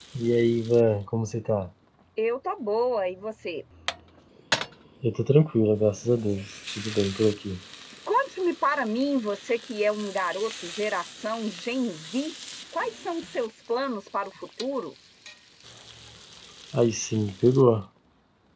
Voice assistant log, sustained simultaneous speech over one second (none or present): none